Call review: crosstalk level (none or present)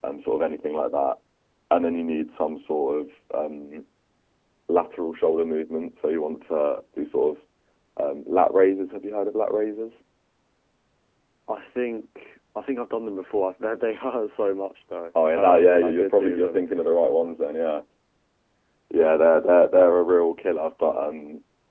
present